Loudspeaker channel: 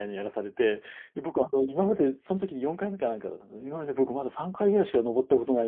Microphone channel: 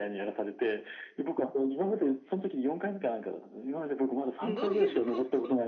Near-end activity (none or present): present